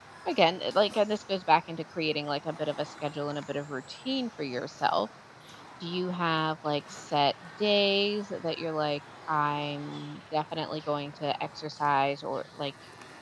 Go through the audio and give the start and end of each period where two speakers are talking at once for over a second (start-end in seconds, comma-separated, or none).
none